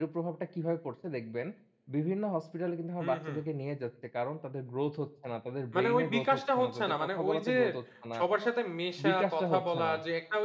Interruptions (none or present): present